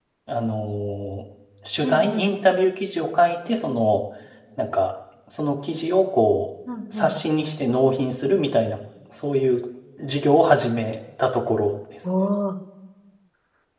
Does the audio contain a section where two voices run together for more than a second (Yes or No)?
No